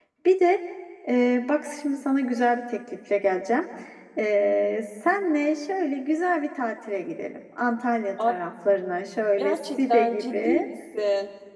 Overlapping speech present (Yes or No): Yes